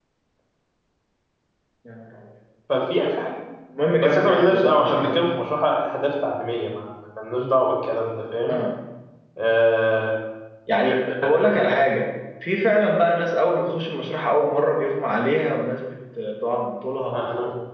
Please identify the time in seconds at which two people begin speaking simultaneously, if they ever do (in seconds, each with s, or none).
4.0 s